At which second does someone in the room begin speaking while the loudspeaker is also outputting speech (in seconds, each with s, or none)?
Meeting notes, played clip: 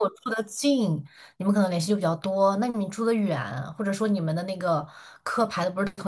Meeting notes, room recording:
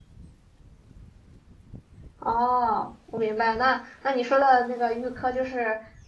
2.2 s